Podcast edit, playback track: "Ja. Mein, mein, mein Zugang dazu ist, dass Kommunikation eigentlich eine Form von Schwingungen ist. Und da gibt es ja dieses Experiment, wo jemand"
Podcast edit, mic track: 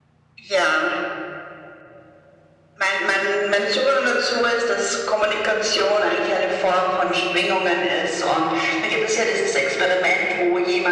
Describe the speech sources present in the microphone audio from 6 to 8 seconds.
echo only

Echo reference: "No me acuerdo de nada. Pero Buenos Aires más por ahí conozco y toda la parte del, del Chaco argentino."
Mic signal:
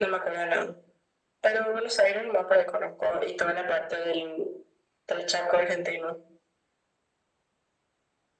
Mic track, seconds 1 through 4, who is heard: echo only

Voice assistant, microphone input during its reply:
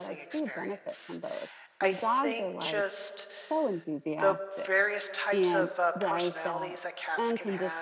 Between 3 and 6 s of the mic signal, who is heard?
both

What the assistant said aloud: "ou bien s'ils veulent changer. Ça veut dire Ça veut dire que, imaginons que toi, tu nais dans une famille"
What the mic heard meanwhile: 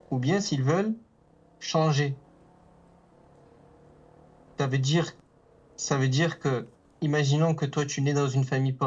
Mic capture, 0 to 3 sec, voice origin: echo only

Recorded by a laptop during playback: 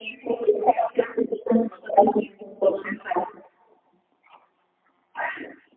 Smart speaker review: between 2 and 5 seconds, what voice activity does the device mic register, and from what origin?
echo only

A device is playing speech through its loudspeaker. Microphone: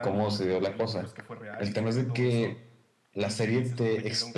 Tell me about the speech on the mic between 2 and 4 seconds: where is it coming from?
both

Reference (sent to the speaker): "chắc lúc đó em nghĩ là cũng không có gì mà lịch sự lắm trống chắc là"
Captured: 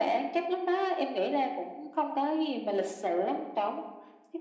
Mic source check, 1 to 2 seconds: echo only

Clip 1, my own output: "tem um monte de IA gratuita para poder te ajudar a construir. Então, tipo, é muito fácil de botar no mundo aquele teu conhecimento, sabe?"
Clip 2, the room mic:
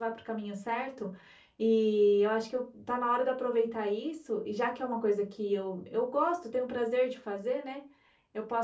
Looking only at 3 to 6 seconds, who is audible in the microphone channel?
user only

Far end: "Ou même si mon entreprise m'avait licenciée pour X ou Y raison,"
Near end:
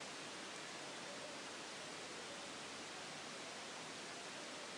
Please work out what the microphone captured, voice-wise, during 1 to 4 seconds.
neither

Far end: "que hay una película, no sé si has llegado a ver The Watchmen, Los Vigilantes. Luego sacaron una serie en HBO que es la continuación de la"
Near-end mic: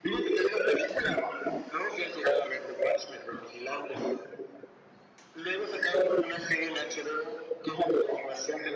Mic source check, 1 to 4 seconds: echo only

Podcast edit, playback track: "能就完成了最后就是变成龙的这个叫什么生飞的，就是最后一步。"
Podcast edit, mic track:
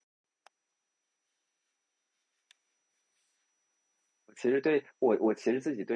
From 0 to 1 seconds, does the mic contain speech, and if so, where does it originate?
neither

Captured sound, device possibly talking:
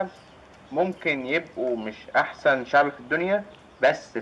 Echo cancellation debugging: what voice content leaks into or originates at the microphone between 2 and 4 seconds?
echo only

